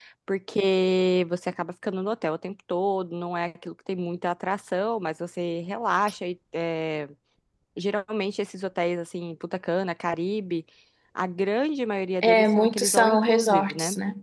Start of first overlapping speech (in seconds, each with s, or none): 12.2 s